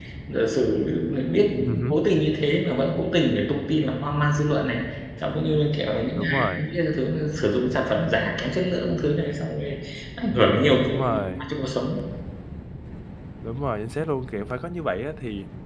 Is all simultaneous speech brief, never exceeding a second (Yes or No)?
Yes